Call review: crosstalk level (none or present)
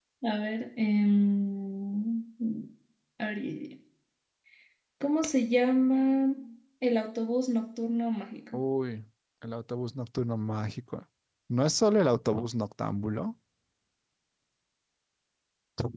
none